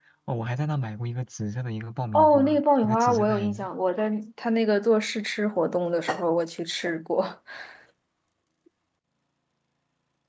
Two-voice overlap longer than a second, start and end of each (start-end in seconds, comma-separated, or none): 2.1-3.7